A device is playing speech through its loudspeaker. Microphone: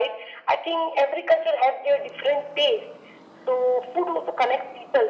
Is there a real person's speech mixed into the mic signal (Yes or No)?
No